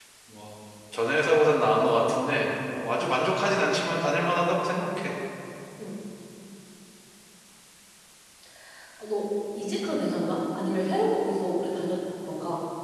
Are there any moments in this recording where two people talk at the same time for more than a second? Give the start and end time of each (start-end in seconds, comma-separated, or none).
none